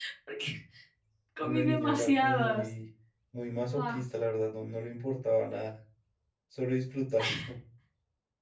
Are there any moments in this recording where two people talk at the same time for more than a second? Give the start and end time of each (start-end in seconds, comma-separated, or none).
1.4-2.7